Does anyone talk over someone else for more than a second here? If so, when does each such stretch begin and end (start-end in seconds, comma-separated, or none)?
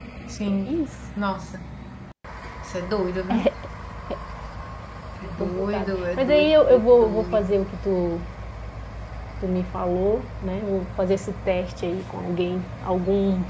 5.4-7.5